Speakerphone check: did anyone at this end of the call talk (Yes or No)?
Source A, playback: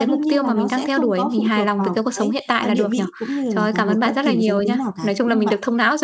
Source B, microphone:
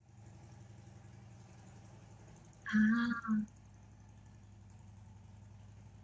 Yes